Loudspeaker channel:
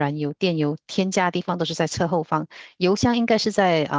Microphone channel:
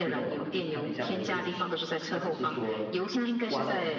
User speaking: Yes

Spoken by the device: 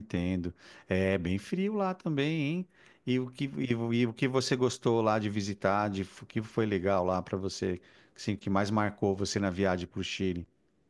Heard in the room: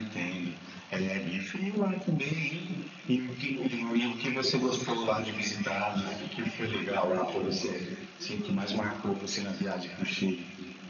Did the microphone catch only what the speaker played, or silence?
No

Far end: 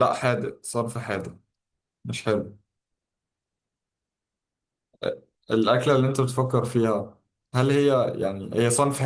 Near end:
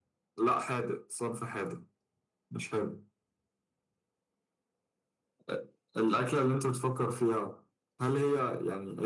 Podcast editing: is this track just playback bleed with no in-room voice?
Yes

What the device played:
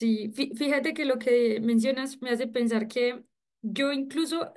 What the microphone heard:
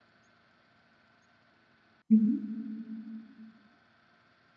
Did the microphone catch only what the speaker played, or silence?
No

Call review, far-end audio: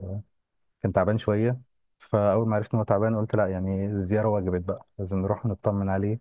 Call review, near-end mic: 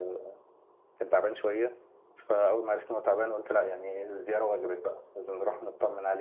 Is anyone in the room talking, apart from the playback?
No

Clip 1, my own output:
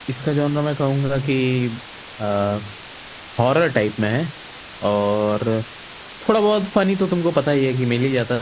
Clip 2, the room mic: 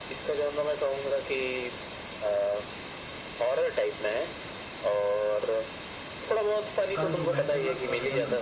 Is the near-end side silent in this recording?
No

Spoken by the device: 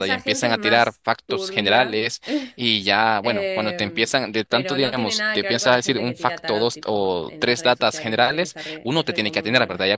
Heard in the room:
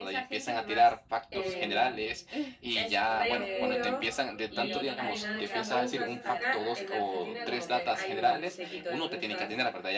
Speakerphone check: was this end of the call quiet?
No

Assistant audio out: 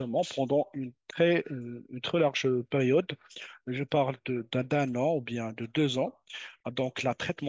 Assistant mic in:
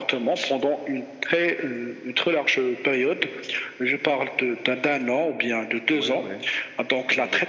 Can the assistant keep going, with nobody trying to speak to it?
No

